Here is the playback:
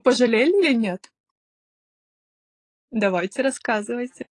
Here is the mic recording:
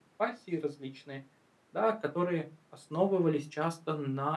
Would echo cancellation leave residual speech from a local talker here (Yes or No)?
Yes